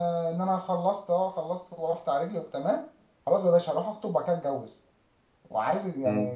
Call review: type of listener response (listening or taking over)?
taking over